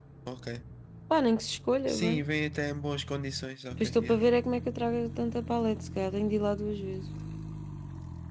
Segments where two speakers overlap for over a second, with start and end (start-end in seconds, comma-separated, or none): none